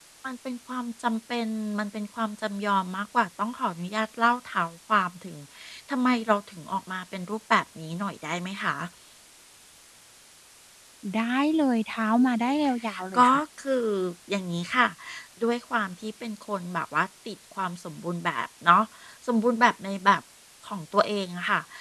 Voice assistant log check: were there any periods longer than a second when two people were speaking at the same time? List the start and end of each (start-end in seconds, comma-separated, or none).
none